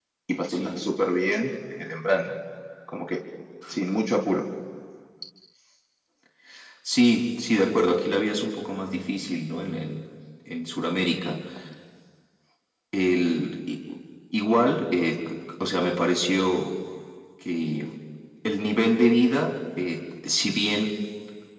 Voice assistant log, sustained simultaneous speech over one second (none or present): none